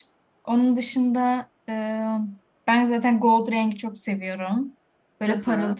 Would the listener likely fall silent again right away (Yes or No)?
Yes